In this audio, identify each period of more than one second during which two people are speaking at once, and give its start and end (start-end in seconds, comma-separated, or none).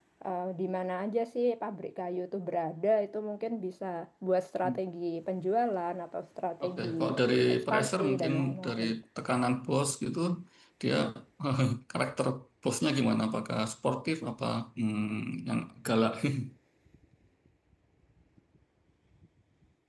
7.5-8.9